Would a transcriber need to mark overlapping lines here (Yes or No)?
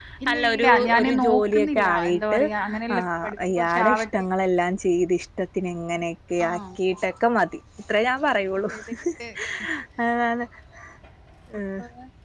Yes